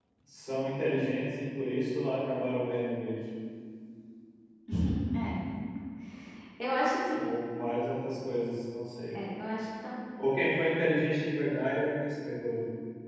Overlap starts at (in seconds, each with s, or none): none